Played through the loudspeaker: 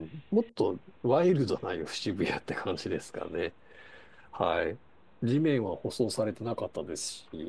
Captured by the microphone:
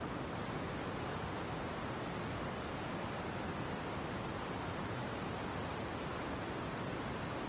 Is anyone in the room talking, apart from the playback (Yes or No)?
No